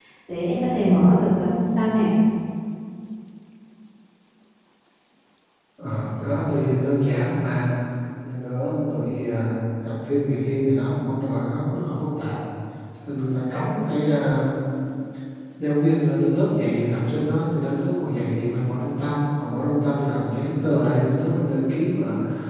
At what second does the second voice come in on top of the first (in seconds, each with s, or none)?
none